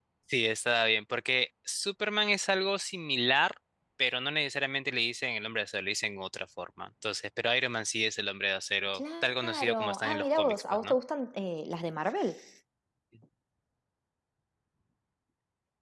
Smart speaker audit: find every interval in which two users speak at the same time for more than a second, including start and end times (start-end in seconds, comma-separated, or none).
9.0-11.0